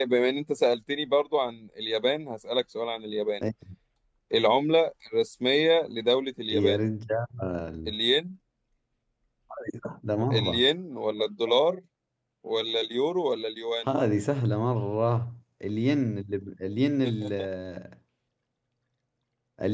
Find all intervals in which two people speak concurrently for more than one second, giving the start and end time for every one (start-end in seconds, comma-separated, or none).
none